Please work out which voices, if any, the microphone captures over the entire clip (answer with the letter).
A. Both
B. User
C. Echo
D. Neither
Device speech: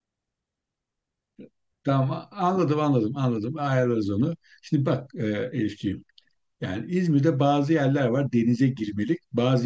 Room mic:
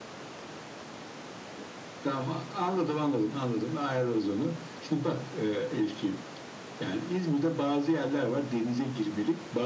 C